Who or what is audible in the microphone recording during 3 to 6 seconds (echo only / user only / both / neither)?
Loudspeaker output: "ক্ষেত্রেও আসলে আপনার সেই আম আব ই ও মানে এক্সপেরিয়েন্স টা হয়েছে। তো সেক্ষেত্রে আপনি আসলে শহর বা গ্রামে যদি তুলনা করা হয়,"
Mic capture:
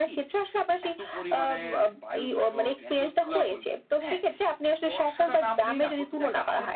both